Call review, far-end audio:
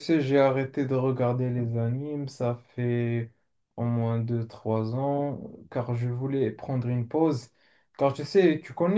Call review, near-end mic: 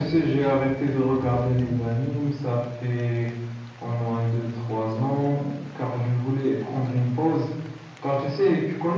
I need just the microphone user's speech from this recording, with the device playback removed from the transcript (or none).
none